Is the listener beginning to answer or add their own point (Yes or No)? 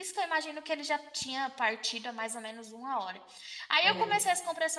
No